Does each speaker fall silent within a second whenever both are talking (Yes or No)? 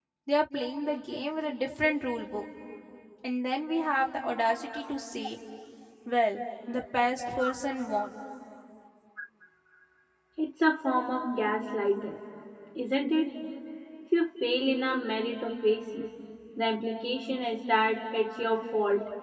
Yes